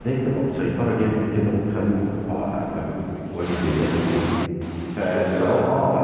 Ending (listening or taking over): listening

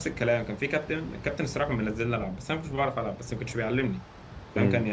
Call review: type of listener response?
listening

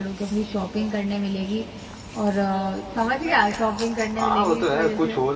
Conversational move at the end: taking over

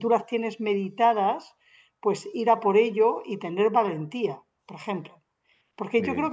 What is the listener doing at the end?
listening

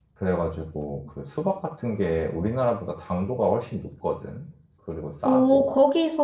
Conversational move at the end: taking over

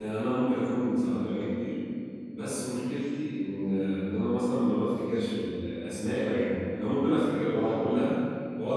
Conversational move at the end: listening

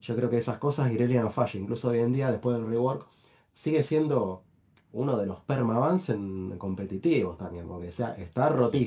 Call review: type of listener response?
listening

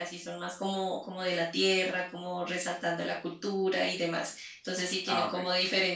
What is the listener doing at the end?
listening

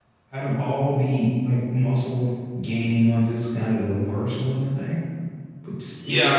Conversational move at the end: taking over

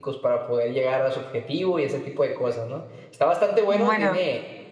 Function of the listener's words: listening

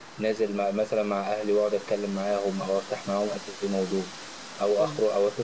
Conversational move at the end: listening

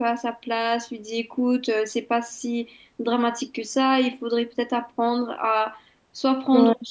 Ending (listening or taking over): listening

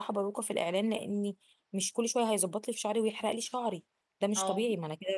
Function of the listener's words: listening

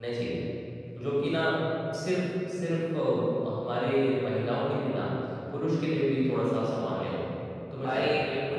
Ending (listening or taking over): taking over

